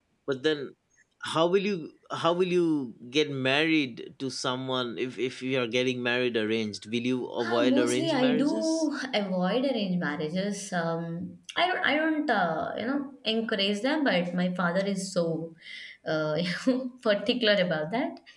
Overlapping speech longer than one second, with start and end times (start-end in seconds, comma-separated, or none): 7.4-8.8